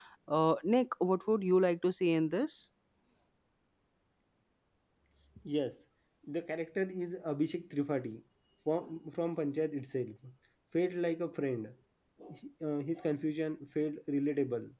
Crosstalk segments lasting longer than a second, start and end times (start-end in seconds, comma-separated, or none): none